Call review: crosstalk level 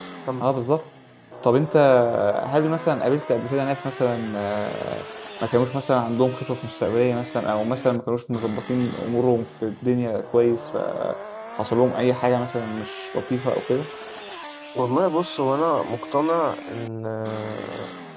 none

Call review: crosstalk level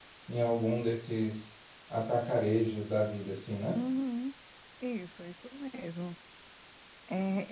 none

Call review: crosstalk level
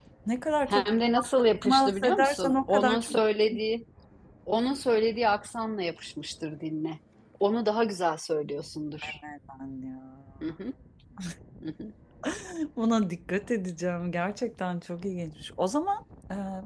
present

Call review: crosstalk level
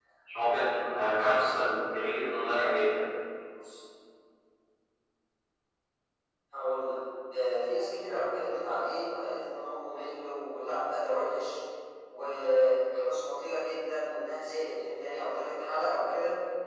none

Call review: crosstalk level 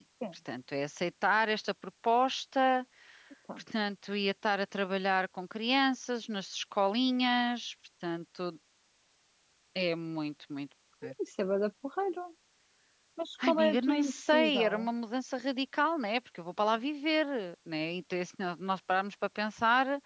present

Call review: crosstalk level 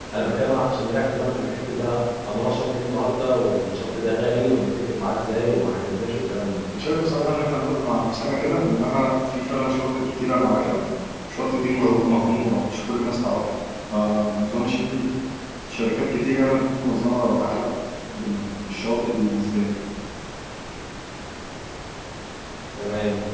none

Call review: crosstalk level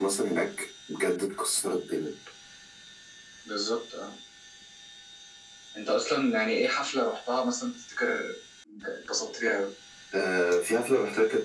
none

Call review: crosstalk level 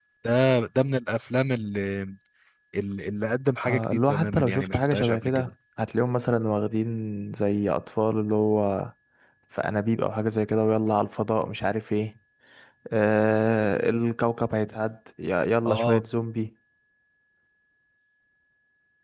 present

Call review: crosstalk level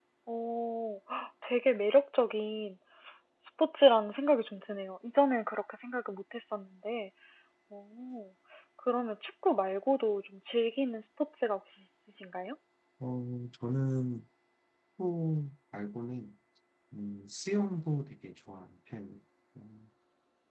none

